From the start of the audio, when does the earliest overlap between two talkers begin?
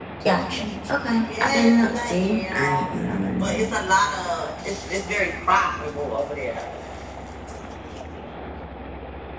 1 s

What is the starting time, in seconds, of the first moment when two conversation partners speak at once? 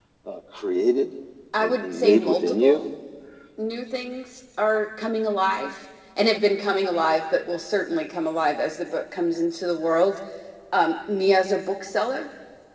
2 s

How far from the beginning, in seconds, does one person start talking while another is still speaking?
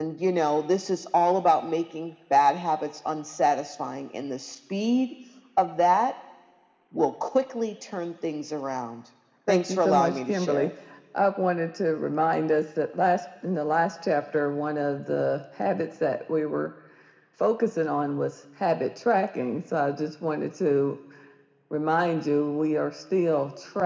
9 s

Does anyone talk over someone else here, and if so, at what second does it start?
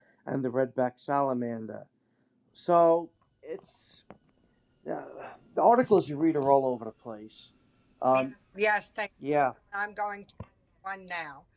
none

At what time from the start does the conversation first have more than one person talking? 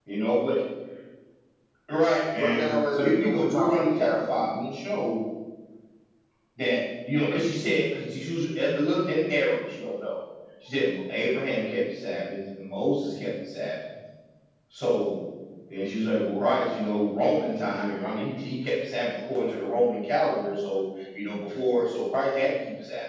2 s

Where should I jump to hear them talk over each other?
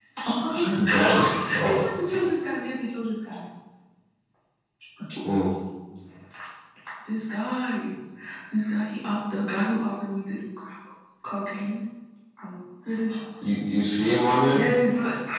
1 s

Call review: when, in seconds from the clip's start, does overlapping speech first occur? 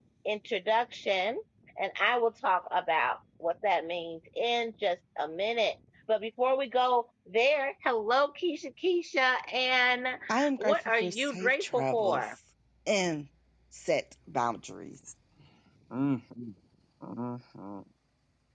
11 s

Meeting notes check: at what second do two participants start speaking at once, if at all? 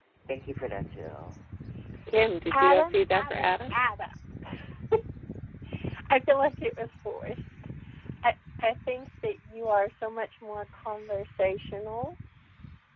3 s

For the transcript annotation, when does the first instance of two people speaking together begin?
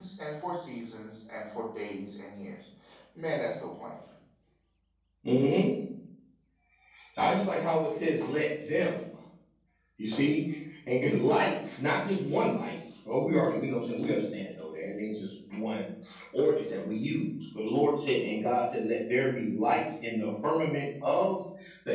none

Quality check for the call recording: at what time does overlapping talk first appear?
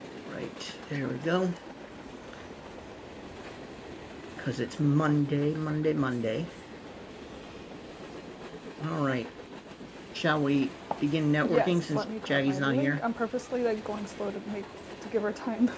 11 s

